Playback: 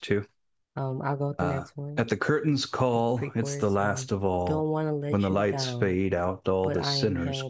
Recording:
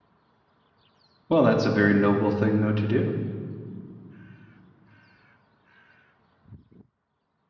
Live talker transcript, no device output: Well, that's a very noble thing though to do.

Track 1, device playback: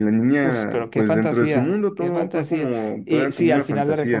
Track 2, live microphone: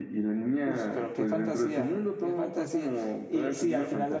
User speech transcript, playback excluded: none

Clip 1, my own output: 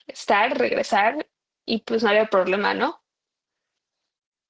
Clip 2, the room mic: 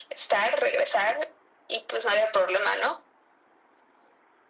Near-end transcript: none

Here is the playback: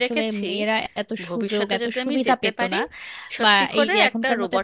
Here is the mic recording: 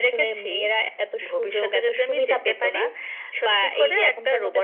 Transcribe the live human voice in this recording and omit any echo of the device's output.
none

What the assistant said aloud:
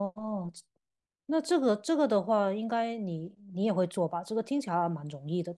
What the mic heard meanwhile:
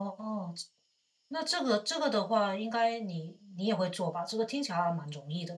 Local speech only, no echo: none

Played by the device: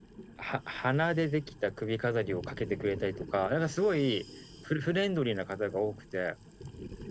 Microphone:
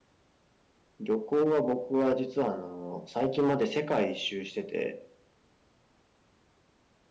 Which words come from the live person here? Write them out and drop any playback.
旅行は僕は実はあの、最近まで世界一周してて、

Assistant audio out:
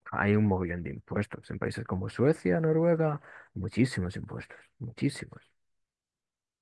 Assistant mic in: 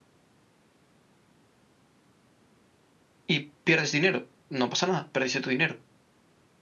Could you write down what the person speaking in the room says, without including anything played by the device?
y pierdes dinero. No pasa nada, perdiste tu dinero.

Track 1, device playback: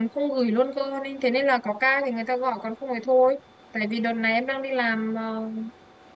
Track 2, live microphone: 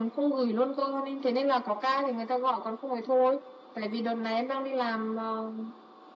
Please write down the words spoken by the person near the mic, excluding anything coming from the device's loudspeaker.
none

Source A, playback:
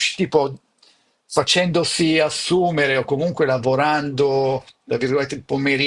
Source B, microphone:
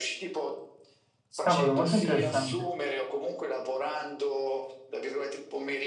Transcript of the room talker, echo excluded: Cavolo, molto interessante.

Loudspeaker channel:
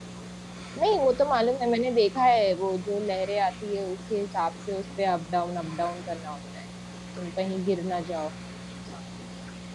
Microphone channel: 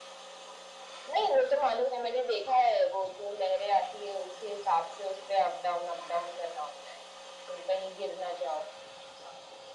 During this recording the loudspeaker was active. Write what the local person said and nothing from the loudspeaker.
none

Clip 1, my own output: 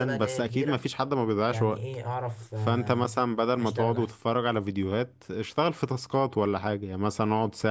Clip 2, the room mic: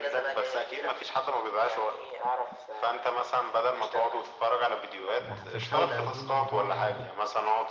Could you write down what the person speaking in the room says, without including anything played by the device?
بح- فبحاول ادين هو يعني ايه

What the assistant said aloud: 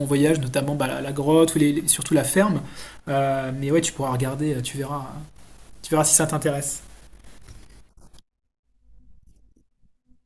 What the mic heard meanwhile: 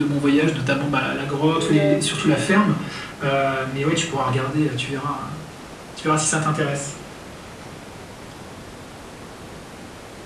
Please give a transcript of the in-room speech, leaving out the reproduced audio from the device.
Et, euh,

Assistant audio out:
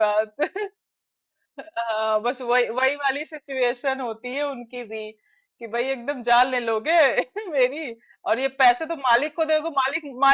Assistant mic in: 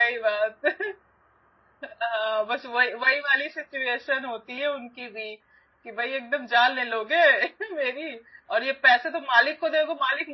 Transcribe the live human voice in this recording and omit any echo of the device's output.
none

